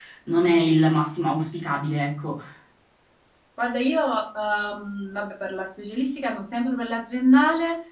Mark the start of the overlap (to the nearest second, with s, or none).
none